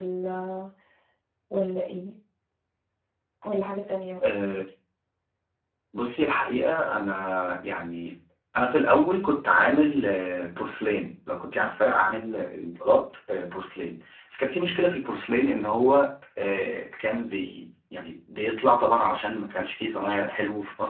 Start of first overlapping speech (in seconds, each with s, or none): none